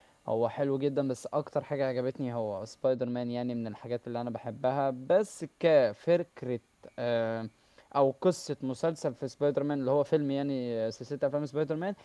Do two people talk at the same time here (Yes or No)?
No